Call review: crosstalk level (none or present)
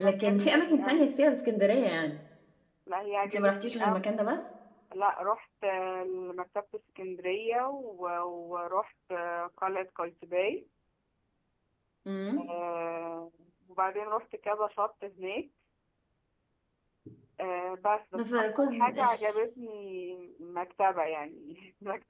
present